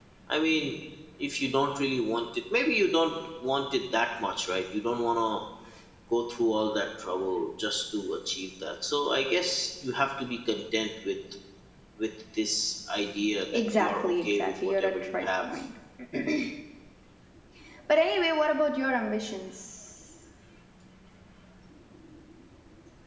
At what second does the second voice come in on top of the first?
13.5 s

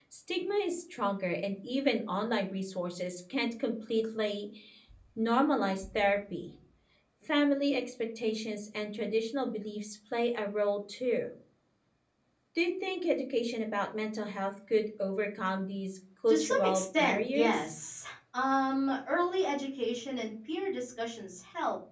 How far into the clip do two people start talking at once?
16.3 s

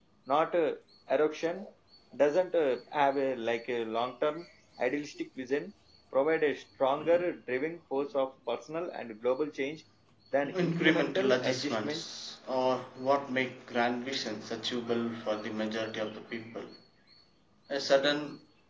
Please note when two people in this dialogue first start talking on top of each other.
10.4 s

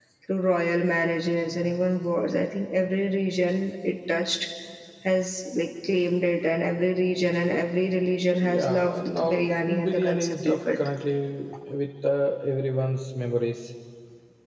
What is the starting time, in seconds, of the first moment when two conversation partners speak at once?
8.4 s

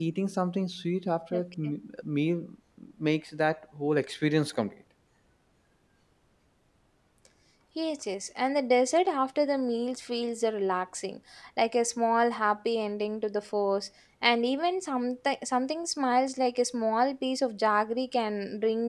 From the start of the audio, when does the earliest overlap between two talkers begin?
none

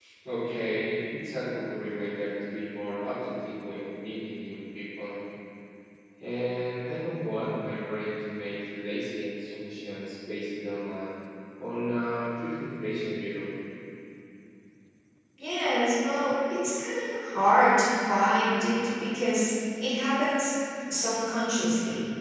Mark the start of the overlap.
none

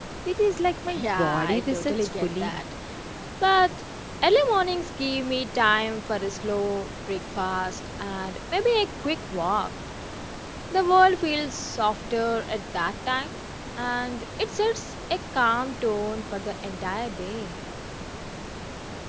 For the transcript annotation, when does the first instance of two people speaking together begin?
0.9 s

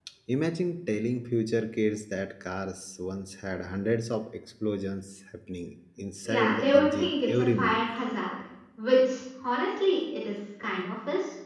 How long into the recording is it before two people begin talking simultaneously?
6.2 s

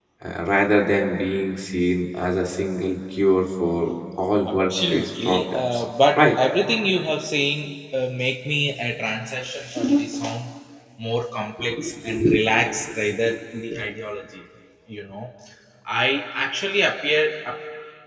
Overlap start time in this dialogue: 4.5 s

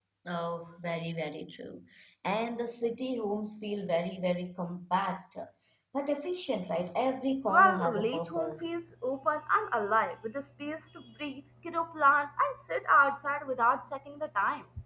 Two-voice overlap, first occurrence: 7.5 s

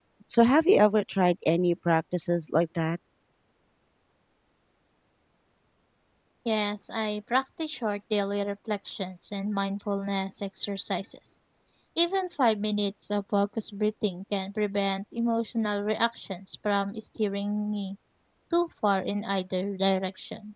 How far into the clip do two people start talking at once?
none

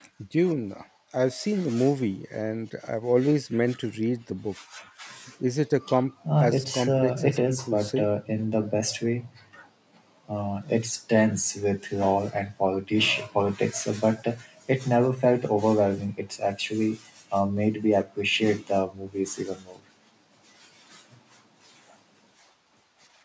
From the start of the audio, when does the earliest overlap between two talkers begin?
6.4 s

